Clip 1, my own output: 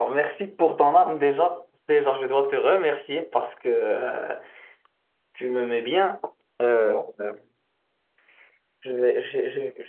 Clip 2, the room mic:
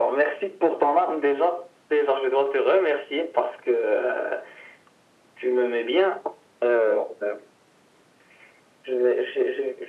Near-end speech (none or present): none